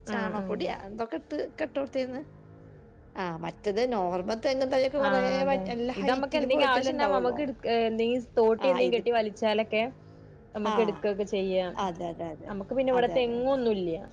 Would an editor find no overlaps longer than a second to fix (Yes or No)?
No